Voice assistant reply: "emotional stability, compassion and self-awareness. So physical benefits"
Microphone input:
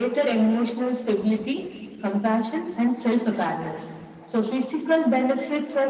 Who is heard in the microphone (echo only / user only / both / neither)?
echo only